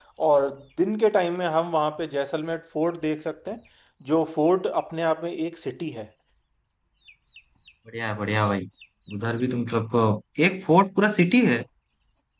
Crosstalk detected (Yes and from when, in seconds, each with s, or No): No